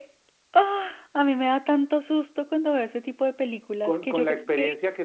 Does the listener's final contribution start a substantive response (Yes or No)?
Yes